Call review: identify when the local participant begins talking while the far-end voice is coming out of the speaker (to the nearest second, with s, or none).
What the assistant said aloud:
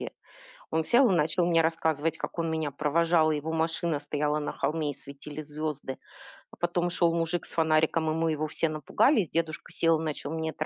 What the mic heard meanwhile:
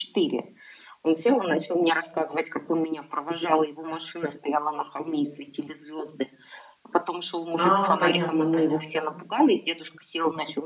8 s